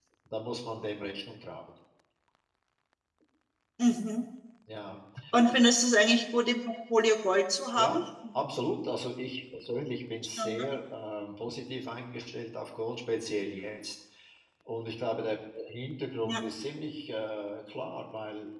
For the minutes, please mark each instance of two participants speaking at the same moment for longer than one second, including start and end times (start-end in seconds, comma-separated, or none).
none